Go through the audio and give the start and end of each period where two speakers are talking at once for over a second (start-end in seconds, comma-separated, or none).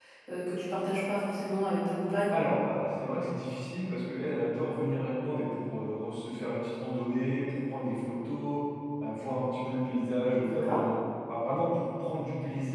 none